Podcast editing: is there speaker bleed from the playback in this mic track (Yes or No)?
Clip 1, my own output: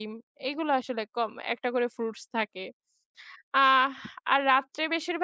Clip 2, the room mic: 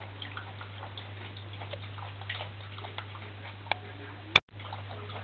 No